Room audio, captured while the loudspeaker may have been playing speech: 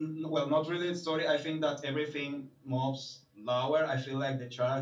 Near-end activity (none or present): none